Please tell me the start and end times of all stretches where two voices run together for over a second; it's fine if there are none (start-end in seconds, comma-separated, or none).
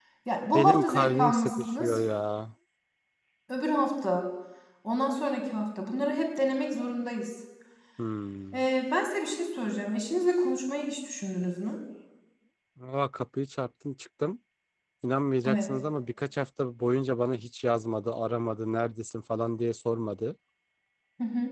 0.5-2.0